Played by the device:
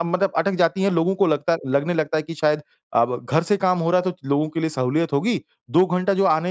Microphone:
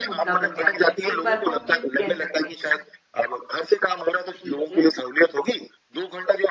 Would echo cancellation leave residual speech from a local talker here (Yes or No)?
Yes